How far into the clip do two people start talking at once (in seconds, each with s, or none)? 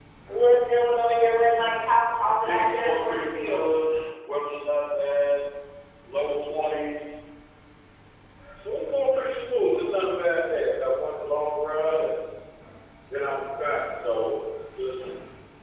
2.2 s